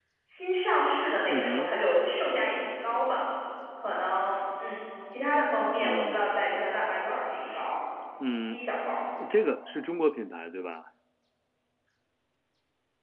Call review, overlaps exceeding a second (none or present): none